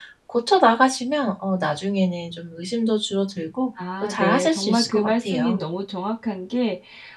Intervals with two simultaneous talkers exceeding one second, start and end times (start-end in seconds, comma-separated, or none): 4.0-5.6